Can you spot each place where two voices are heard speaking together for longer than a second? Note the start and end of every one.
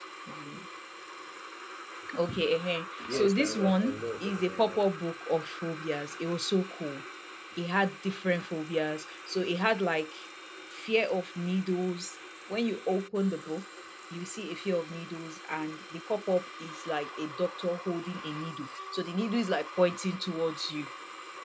3.1-4.8

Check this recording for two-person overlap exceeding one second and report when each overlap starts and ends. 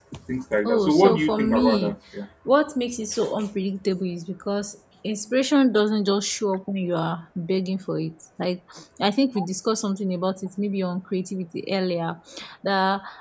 0.6-1.9

